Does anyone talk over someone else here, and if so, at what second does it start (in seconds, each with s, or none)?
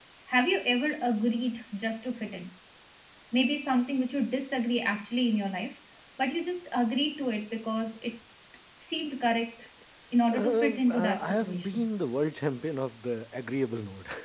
10.3 s